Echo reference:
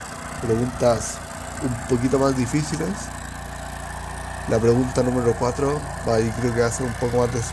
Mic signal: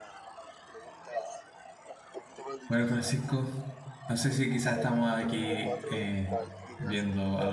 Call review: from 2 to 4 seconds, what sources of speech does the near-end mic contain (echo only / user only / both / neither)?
both